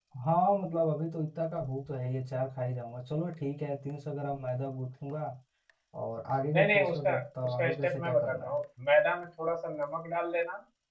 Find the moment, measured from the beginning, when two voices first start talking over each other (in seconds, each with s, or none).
6.5 s